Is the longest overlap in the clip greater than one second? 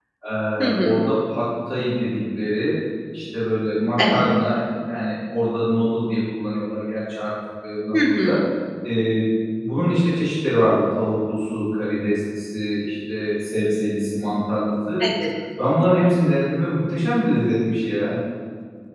No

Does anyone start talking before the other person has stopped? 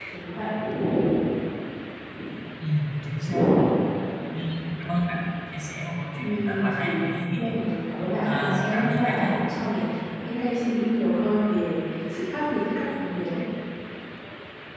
Yes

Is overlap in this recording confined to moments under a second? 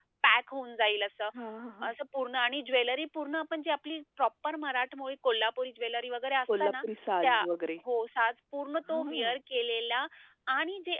Yes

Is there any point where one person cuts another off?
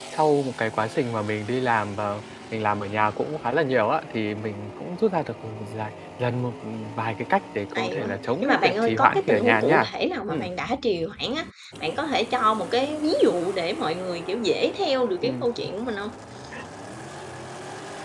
Yes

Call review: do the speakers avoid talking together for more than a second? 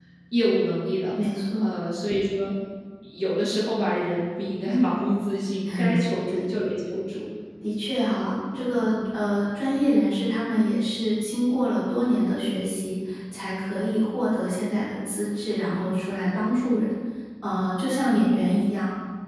Yes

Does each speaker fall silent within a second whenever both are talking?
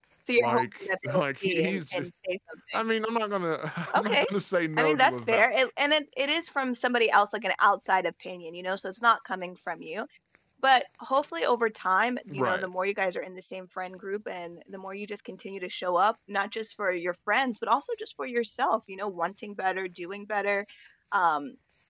No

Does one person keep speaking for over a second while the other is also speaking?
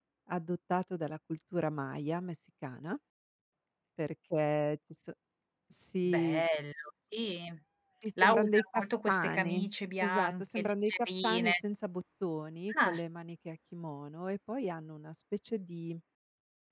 Yes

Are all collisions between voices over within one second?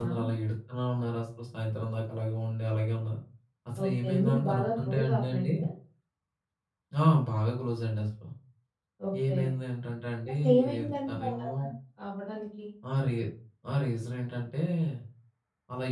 No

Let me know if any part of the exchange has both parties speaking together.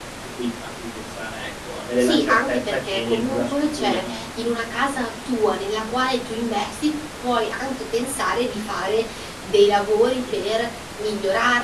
Yes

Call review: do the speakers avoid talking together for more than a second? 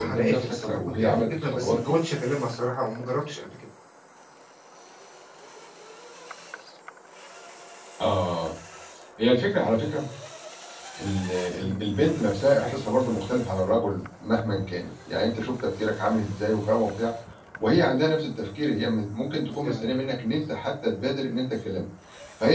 No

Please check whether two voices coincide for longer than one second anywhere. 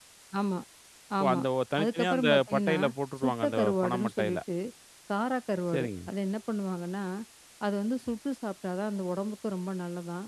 Yes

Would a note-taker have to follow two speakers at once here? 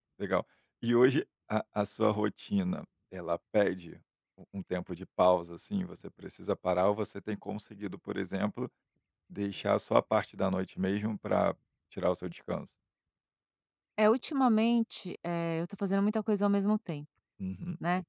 No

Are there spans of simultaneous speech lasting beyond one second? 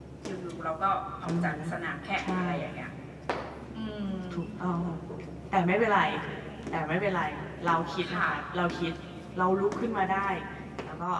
No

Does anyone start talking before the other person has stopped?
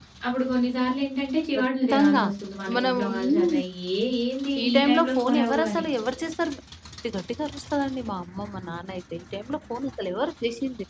Yes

